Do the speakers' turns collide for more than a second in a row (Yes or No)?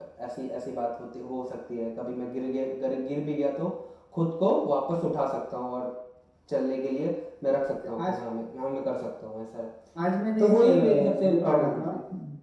Yes